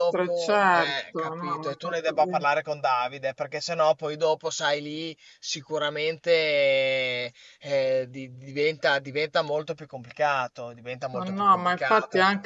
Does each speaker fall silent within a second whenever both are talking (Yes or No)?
No